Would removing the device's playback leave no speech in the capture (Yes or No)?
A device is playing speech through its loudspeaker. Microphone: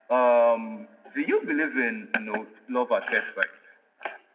Yes